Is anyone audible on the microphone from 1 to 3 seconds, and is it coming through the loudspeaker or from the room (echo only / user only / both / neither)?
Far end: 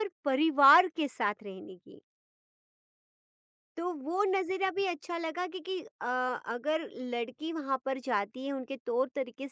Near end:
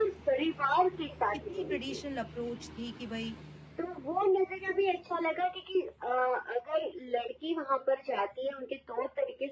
both